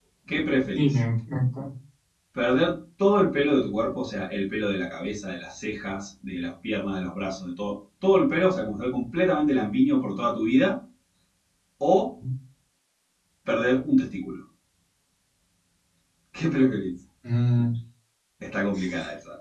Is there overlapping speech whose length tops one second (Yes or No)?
No